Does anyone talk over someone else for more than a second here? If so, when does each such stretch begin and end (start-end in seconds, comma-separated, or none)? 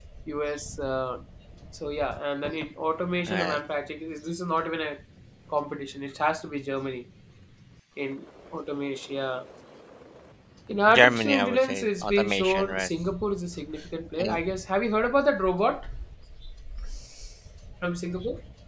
10.9-12.9